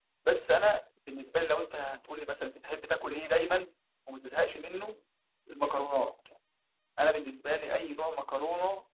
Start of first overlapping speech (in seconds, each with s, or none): none